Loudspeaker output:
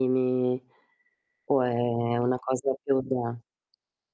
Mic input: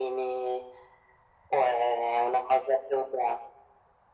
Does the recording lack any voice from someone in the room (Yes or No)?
Yes